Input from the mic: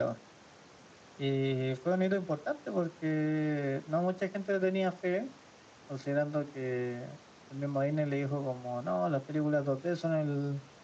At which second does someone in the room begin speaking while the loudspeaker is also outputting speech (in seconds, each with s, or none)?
none